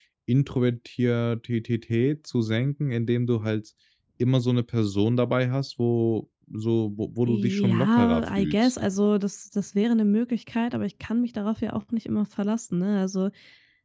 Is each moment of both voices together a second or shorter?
No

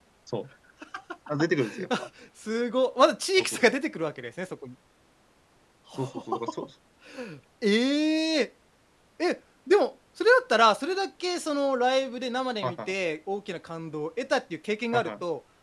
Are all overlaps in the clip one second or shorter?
Yes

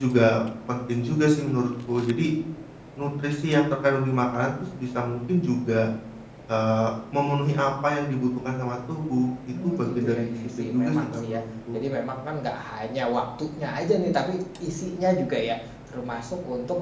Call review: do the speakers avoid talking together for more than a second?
No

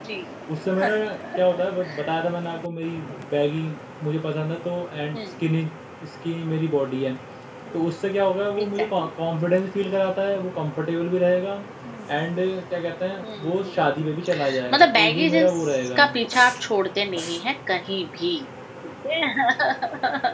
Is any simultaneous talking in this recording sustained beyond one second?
Yes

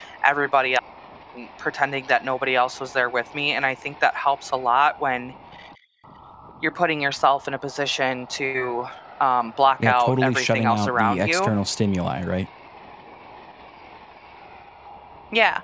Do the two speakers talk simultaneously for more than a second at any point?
Yes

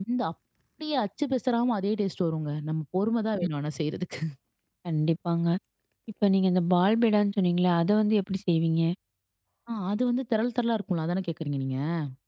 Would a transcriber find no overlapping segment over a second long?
Yes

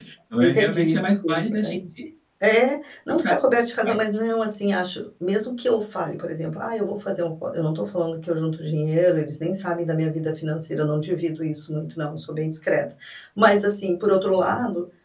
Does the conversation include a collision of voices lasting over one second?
Yes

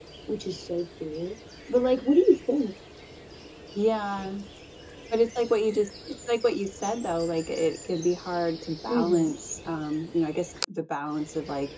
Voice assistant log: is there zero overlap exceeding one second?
Yes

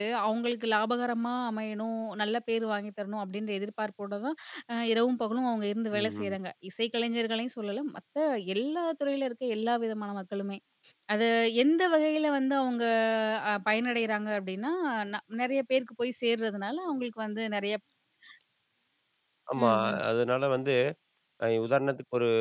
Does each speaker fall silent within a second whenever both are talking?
Yes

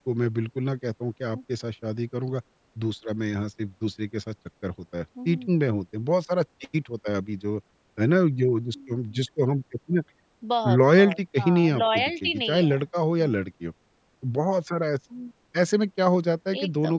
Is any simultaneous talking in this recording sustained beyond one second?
Yes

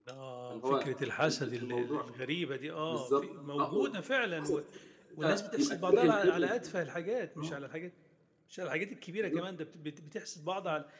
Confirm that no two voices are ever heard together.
No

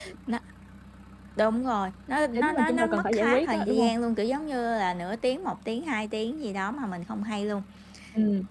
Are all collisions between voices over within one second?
No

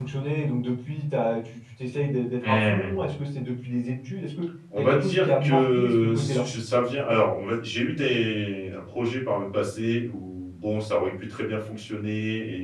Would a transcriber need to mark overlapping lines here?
Yes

